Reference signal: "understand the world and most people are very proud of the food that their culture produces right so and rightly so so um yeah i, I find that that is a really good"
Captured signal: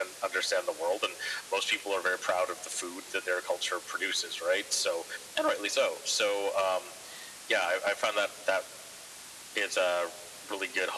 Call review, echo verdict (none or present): present